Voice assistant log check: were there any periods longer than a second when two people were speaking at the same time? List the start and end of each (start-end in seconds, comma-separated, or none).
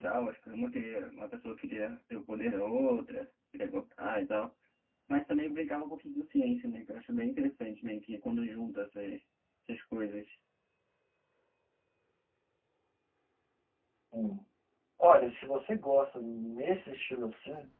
none